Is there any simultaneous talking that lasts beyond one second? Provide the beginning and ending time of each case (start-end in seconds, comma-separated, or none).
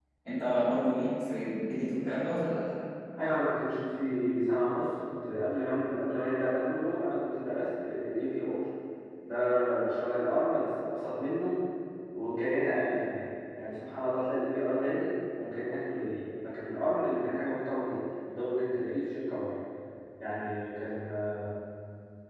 none